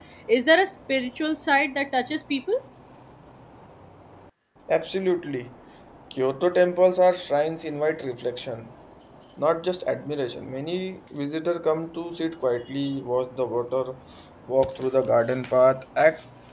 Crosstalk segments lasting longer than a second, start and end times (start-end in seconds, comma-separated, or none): none